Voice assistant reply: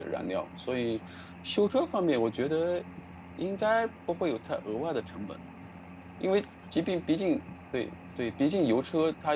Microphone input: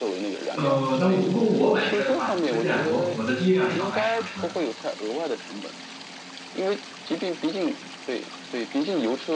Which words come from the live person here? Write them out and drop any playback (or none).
呃，那如果我买车的话，你推荐我我的第一辆车买什么车呢？